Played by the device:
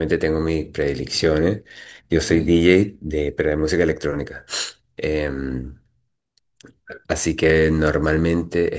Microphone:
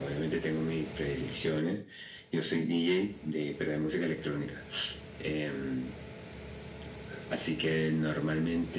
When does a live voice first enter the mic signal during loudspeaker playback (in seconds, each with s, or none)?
none